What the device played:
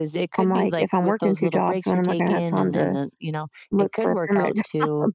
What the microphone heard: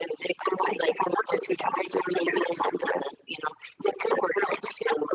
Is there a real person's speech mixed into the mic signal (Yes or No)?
No